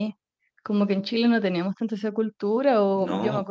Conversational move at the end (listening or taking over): listening